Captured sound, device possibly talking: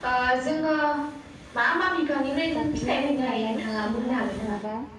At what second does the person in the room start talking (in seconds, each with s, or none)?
2.6 s